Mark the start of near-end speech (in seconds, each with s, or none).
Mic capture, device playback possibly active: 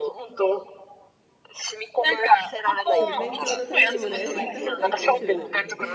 3.0 s